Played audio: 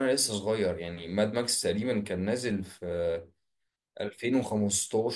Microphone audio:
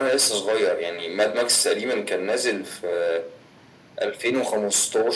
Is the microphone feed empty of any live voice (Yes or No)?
Yes